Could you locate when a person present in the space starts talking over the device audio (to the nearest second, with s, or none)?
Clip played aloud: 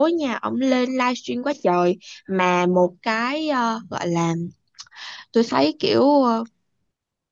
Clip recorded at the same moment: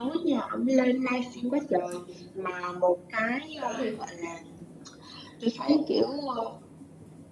4 s